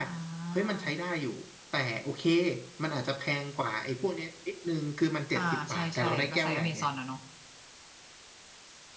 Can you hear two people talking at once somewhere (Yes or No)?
Yes